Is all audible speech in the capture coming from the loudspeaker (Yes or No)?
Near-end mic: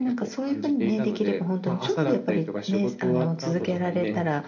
No